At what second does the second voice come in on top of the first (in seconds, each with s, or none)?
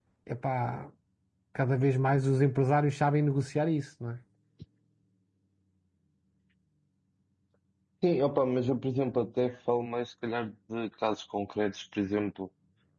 none